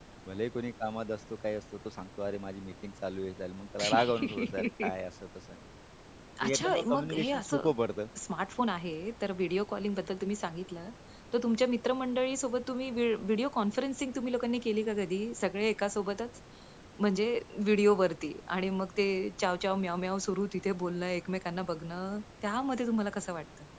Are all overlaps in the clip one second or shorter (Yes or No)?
No